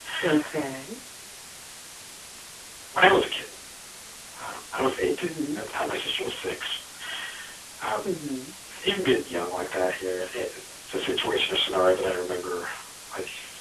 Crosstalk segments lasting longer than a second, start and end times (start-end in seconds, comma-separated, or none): none